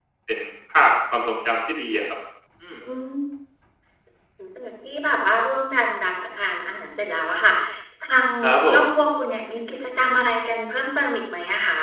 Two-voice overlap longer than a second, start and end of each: none

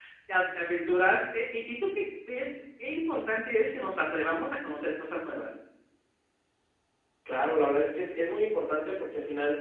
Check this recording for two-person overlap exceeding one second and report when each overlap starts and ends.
none

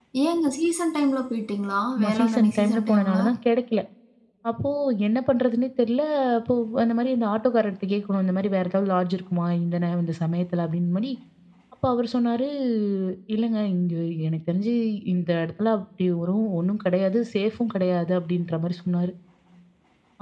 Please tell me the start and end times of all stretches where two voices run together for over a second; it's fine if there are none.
2.0-3.2

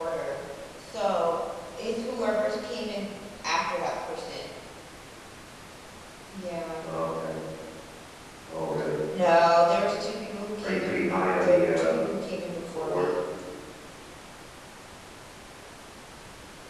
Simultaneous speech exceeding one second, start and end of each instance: 10.6-11.9

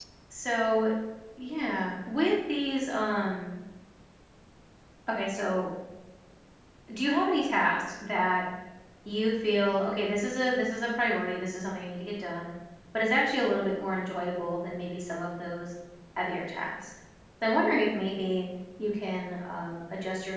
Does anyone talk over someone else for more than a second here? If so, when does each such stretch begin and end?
none

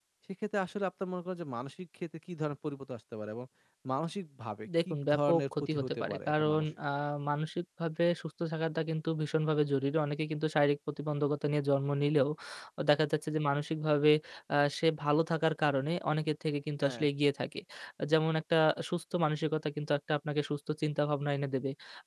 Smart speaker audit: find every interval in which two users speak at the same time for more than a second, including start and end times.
4.9-6.7

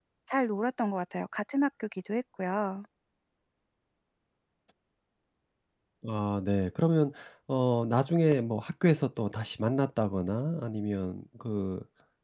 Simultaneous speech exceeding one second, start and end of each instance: none

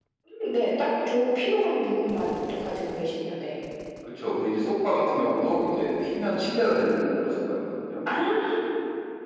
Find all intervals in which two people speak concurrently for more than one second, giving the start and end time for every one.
none

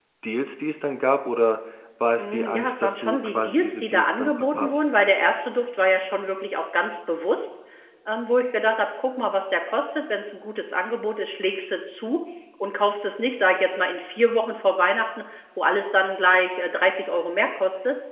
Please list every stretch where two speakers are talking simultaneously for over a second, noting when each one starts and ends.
2.2-4.8

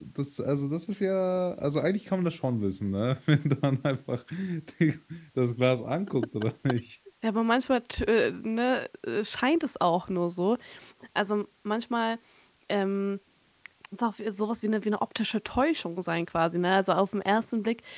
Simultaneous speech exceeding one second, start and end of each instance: none

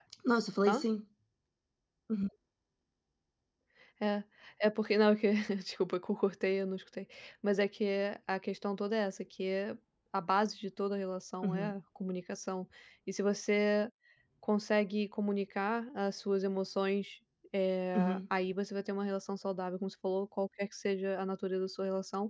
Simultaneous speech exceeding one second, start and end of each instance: none

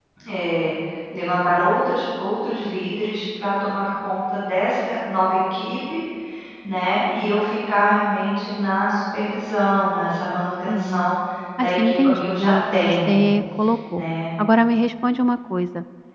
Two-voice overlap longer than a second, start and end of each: 11.6-13.2

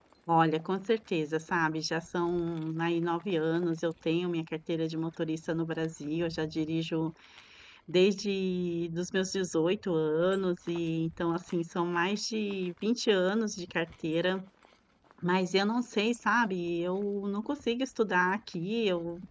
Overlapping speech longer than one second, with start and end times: none

